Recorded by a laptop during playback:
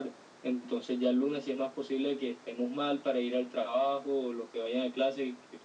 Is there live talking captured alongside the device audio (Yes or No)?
No